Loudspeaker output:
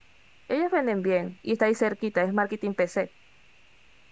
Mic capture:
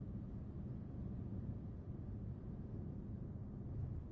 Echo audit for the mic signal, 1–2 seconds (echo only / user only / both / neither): neither